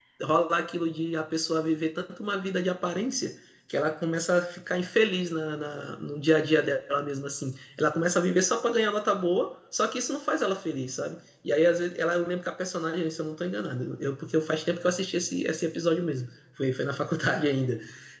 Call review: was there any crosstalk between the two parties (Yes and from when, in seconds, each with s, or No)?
No